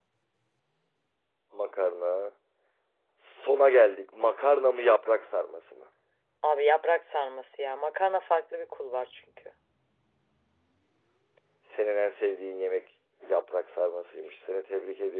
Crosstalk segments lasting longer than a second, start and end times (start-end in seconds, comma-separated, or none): none